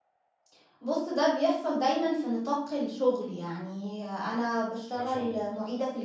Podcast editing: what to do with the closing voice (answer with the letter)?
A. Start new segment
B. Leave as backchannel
B